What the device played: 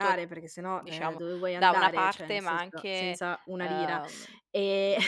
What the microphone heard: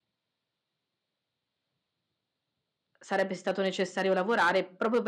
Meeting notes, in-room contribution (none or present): present